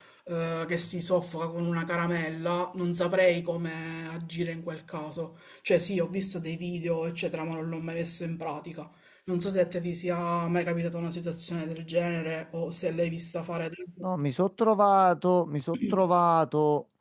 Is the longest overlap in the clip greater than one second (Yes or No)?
No